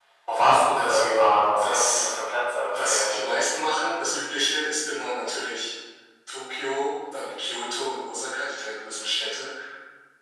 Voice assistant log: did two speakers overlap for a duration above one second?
Yes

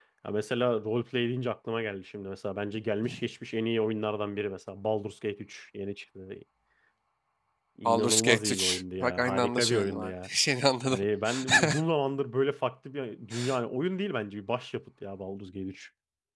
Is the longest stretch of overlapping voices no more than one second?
No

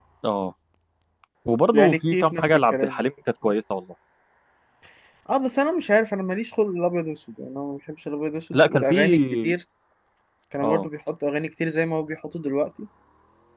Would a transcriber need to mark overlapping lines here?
Yes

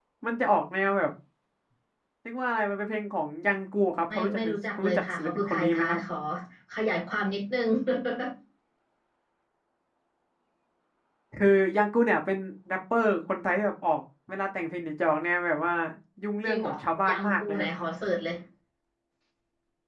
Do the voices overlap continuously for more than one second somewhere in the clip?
Yes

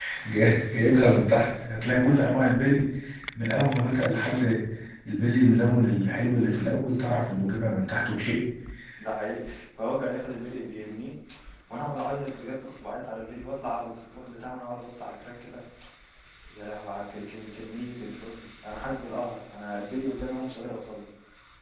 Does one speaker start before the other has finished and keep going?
No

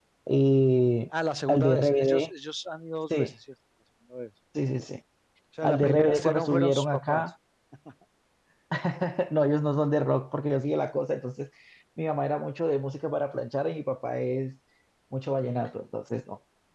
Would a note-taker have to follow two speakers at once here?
Yes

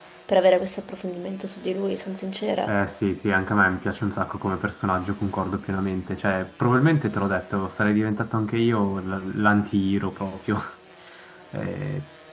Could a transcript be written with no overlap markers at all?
Yes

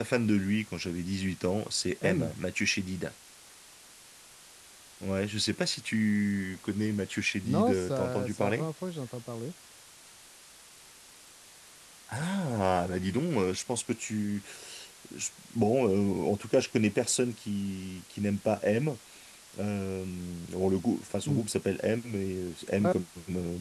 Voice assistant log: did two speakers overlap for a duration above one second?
Yes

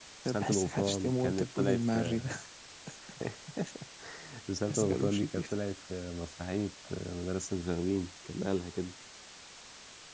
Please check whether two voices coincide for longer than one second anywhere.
Yes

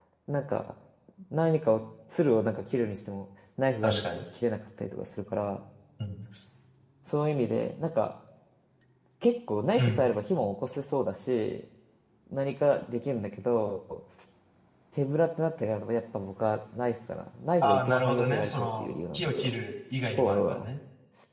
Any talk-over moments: Yes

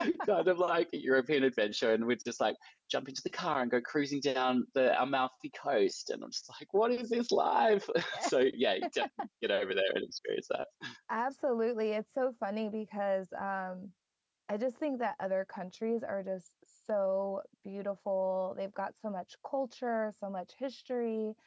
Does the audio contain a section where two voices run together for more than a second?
No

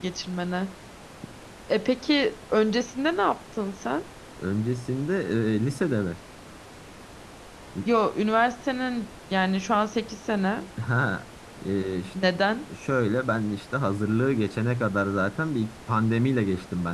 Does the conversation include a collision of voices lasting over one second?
No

